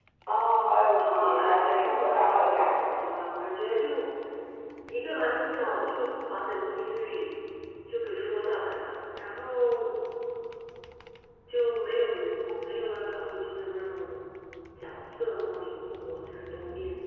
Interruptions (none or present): present